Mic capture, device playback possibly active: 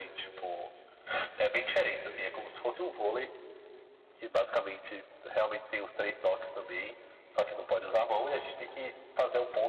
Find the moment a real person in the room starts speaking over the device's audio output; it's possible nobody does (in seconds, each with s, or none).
none